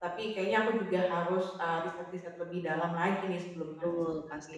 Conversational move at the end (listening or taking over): taking over